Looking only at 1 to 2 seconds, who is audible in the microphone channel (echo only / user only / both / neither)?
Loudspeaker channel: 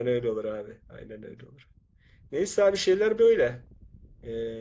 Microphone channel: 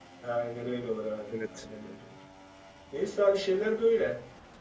both